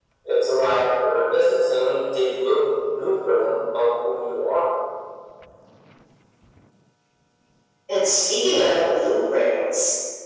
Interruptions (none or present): none